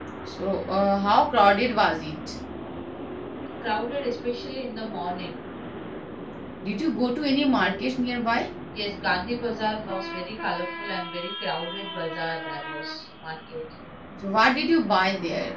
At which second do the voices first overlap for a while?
none

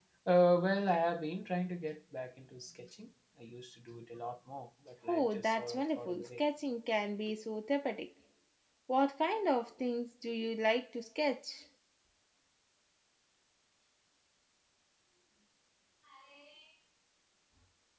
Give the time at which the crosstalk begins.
5.1 s

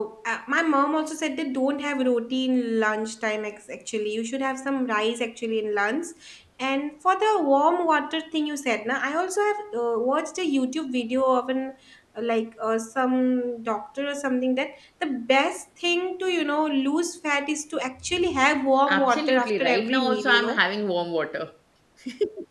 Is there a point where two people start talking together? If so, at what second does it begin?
18.9 s

